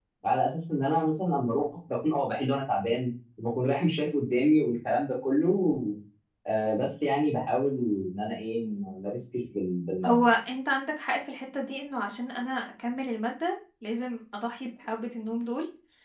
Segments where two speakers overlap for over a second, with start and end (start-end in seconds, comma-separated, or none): none